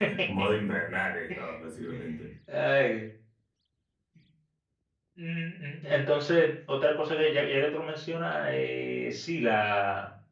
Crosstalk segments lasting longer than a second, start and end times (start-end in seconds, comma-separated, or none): none